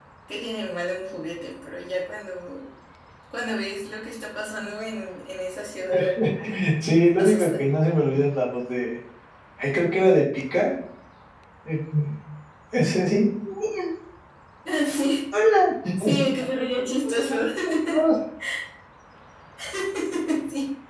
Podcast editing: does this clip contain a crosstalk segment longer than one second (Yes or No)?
No